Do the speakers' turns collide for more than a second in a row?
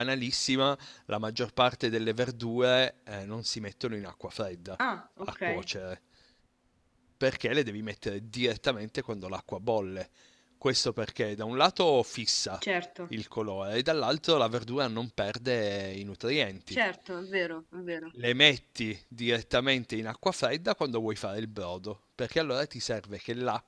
No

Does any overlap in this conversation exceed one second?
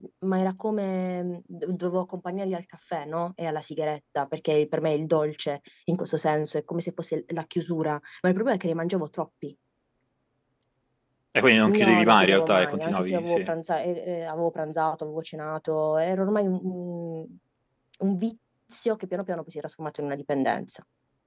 Yes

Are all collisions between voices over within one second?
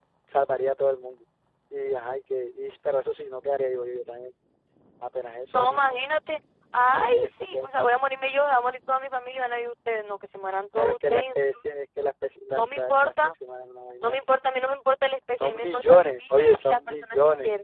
No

